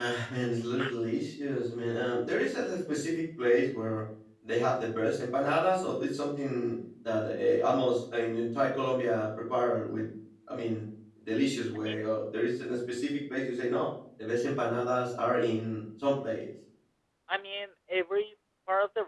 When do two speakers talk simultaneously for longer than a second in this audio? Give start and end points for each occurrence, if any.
none

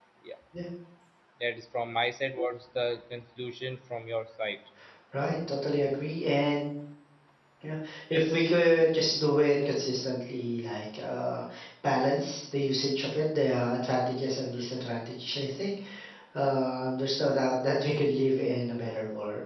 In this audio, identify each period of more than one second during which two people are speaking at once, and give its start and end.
none

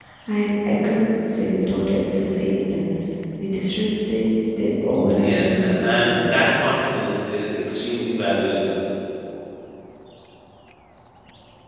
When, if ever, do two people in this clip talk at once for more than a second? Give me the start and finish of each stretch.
5.2-6.5

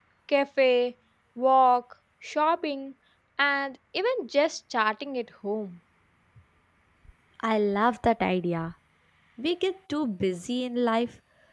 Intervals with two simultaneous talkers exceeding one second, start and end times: none

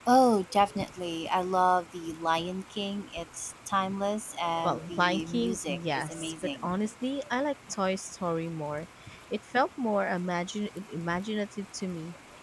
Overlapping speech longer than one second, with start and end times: 4.6-6.7

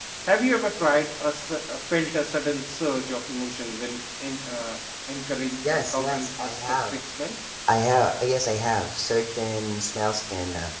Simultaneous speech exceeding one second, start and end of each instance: 5.6-6.9

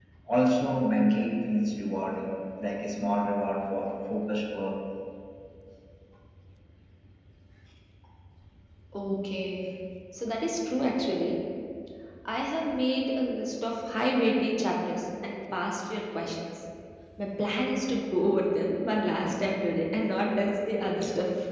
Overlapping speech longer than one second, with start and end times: none

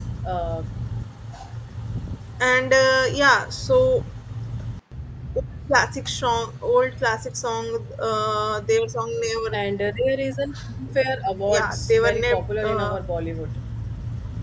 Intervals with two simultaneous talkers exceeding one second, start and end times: 11.5-13.0

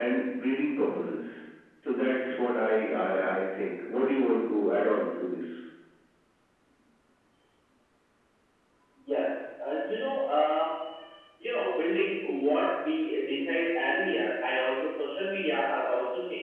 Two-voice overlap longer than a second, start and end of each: none

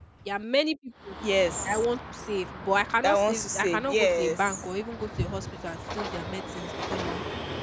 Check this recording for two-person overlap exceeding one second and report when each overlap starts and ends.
3.0-4.7

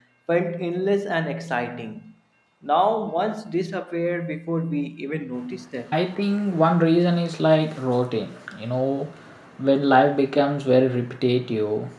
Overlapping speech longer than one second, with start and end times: none

